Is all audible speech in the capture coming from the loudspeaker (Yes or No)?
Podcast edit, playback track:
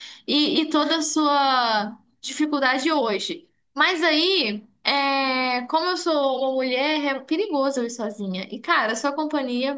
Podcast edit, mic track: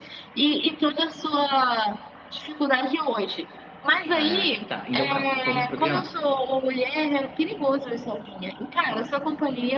No